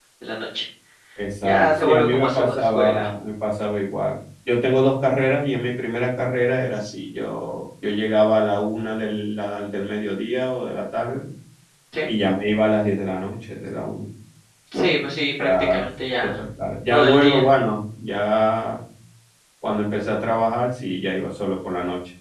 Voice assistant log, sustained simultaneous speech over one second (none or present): present